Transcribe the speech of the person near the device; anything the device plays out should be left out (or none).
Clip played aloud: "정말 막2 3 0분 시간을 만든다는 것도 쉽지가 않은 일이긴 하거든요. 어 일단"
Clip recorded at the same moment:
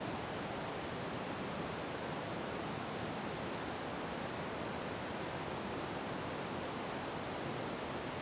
none